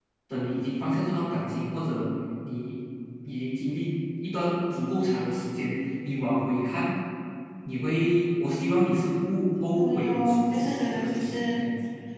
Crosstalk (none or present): present